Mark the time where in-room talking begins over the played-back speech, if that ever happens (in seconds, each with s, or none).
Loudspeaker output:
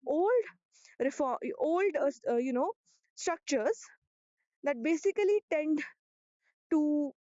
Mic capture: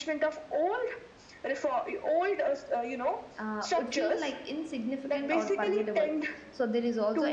3.4 s